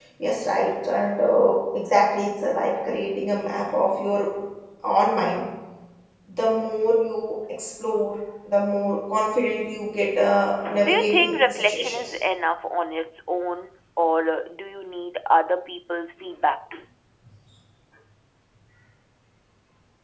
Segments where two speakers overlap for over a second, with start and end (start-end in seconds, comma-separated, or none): 10.8-12.2